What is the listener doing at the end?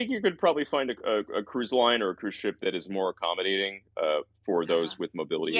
taking over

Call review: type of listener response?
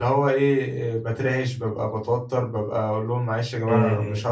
listening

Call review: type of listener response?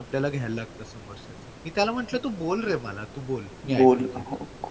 taking over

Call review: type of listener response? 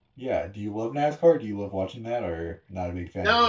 taking over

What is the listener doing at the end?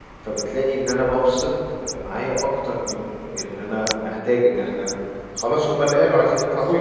taking over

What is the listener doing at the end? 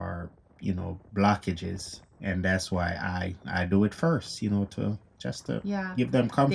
taking over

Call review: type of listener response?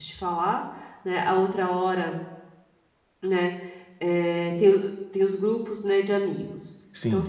listening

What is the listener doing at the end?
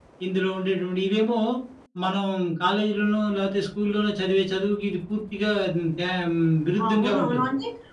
taking over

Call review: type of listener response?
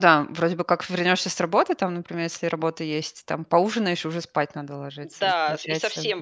taking over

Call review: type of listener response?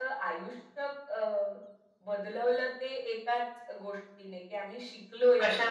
listening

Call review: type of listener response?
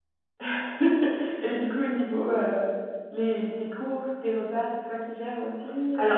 taking over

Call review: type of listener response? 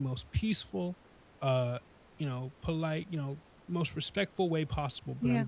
listening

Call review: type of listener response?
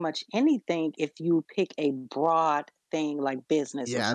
taking over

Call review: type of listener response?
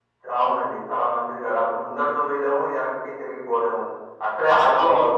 listening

